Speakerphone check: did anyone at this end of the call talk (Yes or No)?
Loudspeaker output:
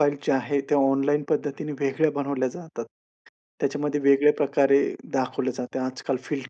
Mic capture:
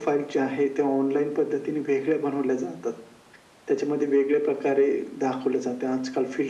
No